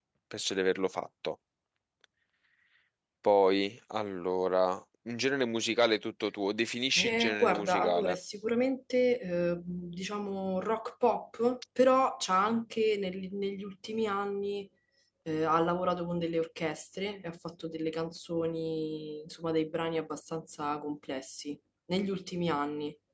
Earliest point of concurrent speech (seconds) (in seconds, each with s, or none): 7.0 s